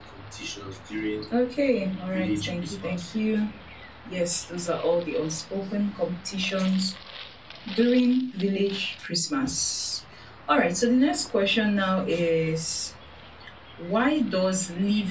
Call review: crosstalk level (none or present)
present